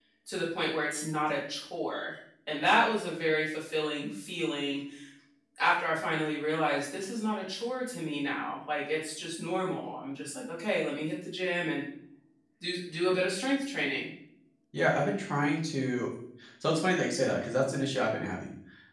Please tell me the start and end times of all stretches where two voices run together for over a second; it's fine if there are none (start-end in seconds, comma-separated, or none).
none